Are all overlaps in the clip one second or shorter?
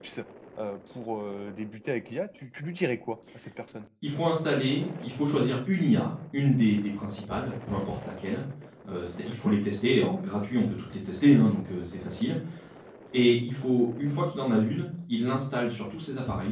Yes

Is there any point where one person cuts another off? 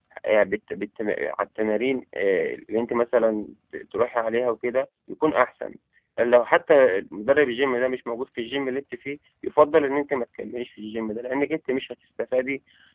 No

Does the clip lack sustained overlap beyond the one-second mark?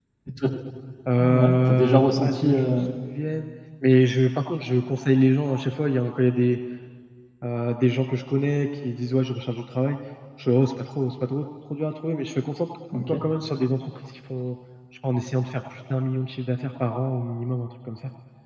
No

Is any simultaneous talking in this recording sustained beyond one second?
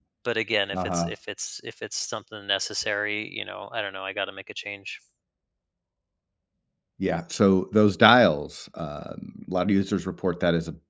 No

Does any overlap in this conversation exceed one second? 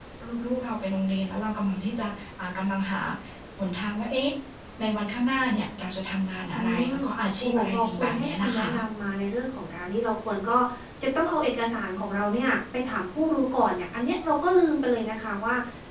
Yes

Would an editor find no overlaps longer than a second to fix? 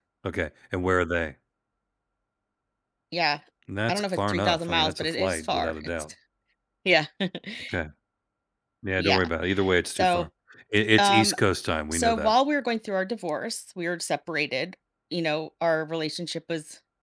No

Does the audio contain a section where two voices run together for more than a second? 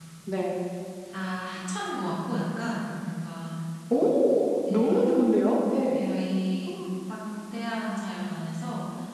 No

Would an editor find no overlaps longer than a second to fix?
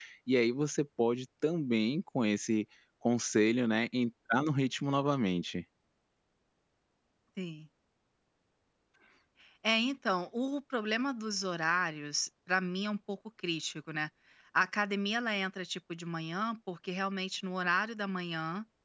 Yes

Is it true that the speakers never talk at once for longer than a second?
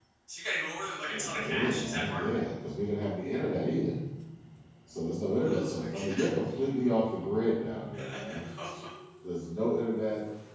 No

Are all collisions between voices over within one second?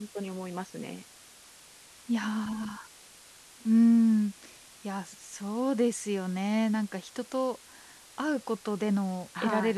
Yes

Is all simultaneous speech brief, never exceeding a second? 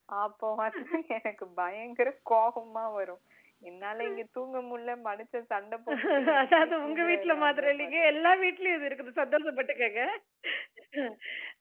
No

